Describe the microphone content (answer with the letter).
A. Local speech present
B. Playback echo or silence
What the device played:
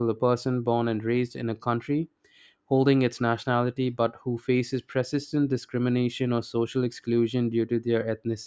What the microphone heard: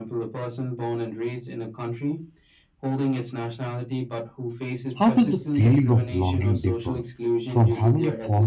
A